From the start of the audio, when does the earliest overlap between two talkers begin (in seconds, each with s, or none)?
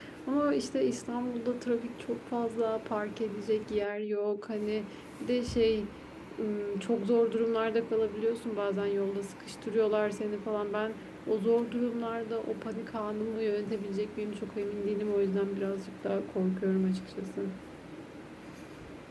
none